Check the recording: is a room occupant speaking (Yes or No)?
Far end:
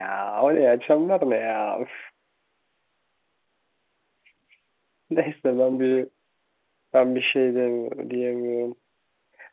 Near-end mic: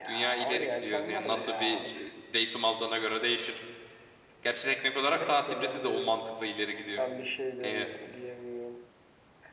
Yes